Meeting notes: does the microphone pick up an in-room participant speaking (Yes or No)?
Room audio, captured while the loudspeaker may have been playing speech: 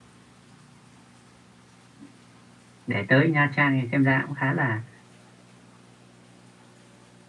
Yes